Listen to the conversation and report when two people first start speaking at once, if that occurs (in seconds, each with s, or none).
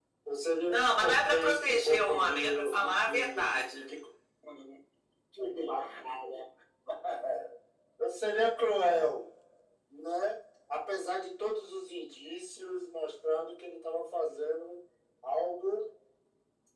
0.7 s